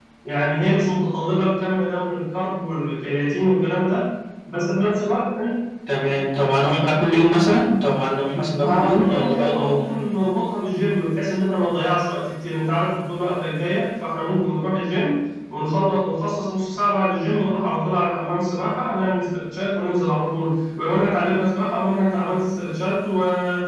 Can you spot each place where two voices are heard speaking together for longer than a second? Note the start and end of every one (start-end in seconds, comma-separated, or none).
8.6-9.9